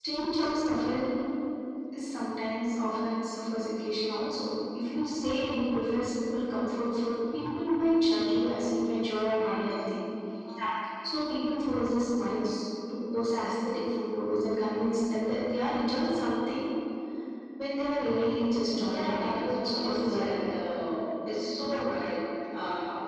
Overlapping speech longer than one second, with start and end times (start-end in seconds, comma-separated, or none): 18.8-20.4